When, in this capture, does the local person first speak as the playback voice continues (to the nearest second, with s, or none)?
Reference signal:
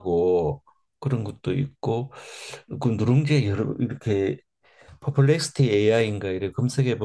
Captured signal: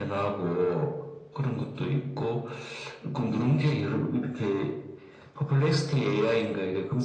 none